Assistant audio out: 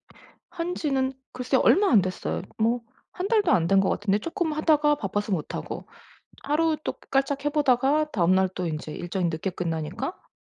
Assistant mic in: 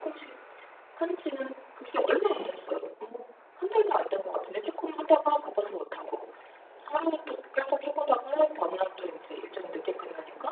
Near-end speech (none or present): present